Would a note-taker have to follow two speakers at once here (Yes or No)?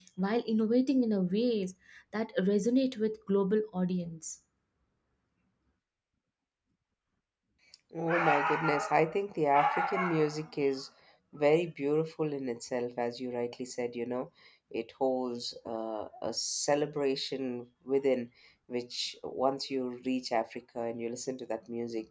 No